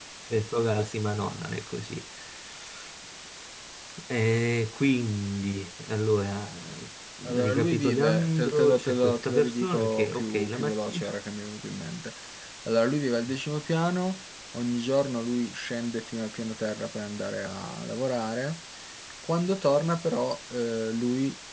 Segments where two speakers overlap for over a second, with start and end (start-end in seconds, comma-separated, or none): 7.4-11.1